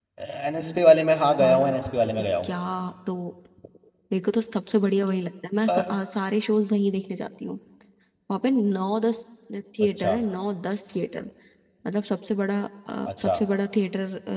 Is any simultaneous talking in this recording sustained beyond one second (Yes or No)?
No